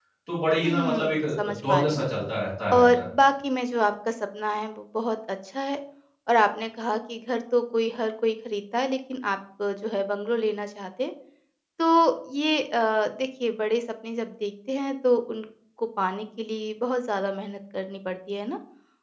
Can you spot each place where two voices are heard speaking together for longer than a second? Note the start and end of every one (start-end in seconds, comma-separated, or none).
0.6-2.1